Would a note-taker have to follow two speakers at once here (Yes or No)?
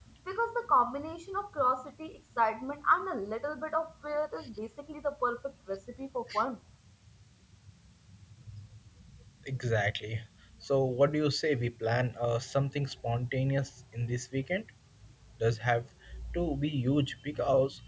No